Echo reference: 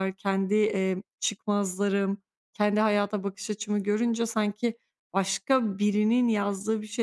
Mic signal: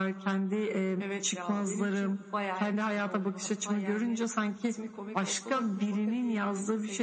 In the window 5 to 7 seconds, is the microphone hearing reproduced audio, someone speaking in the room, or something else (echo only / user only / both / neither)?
both